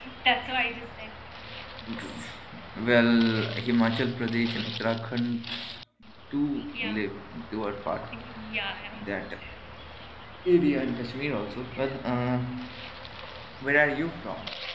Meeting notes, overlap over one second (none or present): none